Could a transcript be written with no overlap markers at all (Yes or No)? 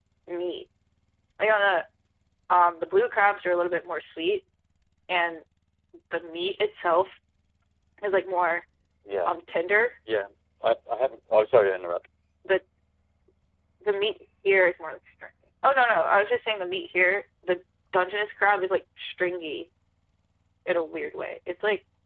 Yes